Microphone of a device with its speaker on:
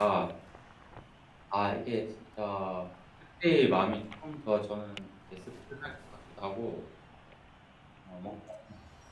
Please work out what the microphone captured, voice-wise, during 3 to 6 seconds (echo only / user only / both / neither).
user only